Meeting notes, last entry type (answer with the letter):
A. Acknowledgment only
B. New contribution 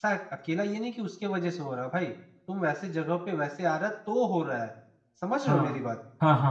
B